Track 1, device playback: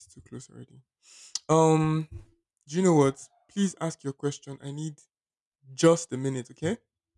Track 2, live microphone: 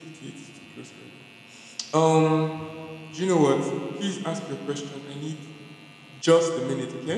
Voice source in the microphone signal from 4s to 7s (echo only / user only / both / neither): echo only